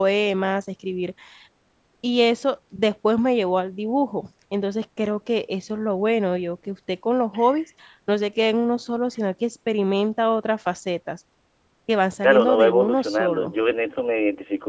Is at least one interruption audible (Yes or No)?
Yes